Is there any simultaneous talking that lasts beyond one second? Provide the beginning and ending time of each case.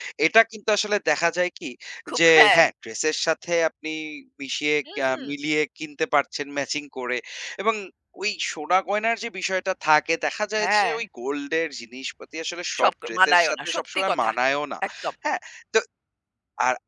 12.8-14.3

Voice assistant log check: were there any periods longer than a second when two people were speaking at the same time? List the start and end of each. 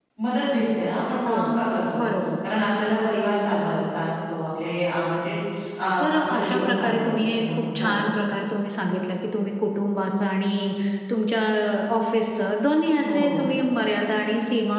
6.0-8.0

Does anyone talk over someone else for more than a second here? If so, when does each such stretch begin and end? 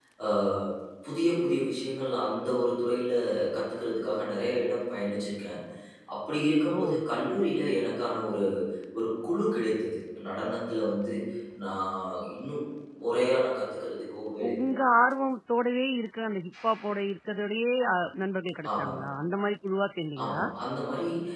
none

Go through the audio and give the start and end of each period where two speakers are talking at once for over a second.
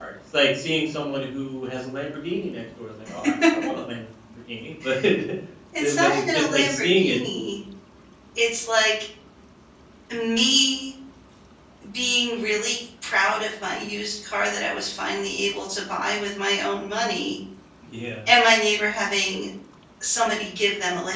5.8-7.2

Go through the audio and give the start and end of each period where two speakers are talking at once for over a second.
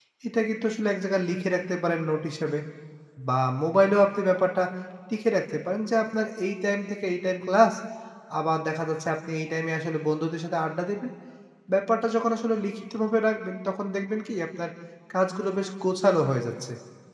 none

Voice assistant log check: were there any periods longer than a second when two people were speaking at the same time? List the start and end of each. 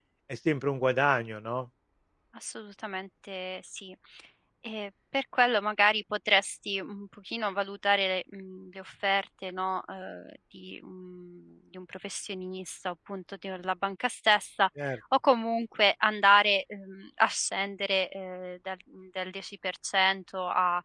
none

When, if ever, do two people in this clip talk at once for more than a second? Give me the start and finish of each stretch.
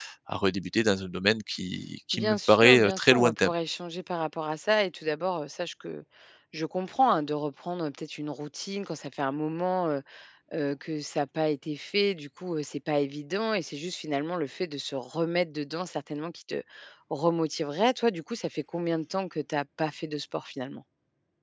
2.1-3.5

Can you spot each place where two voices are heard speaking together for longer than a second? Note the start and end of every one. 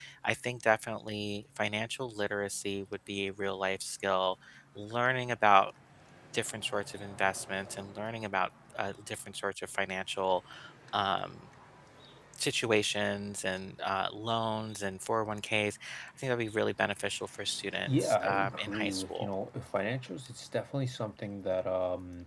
17.8-19.3

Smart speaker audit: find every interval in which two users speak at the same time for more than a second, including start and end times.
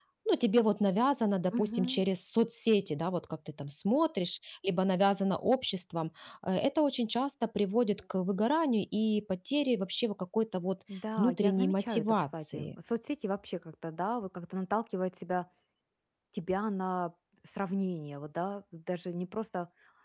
11.2-12.7

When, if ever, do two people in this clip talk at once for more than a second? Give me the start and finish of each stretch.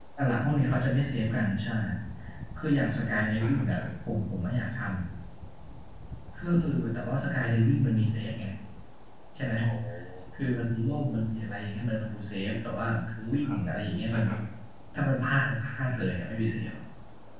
none

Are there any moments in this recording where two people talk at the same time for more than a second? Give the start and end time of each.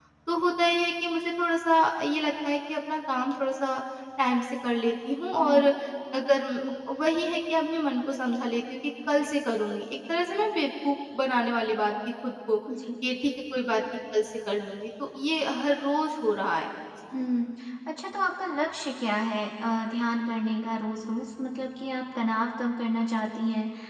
none

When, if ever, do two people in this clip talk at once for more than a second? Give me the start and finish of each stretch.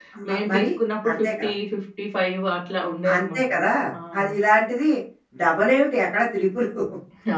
none

